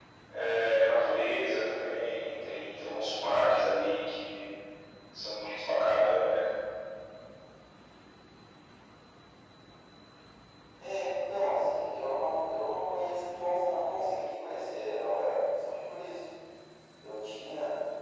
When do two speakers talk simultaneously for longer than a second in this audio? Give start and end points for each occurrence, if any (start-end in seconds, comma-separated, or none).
none